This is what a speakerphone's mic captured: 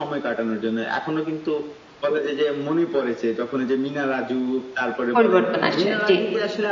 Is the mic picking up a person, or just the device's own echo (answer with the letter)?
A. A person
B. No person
A